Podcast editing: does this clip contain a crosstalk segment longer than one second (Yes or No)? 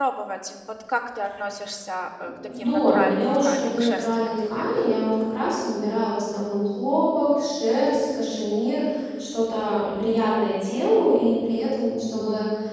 Yes